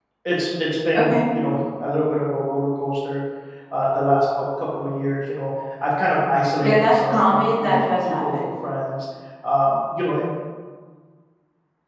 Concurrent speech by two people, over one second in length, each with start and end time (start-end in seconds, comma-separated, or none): 6.6-8.5